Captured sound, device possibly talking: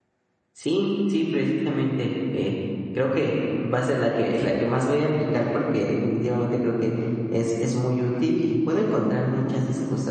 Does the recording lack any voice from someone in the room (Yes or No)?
No